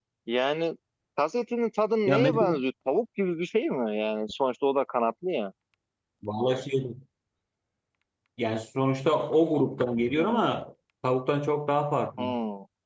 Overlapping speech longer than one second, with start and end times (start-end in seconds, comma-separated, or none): none